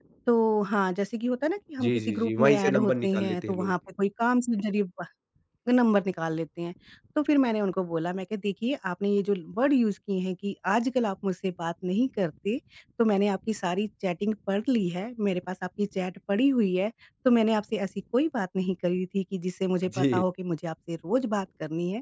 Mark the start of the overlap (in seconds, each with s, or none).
1.8 s